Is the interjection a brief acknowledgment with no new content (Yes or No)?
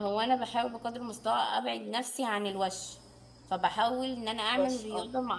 Yes